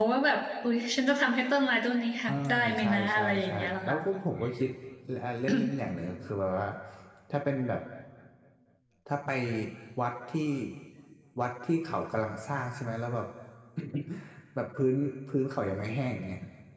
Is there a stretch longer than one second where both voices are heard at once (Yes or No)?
Yes